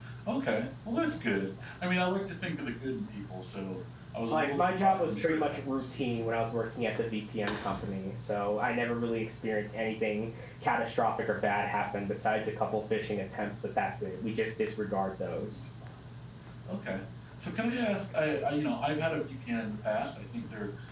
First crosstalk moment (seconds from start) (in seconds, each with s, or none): 4.3 s